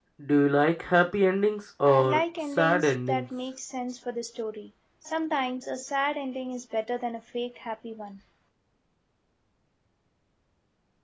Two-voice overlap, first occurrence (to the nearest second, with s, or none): 2 s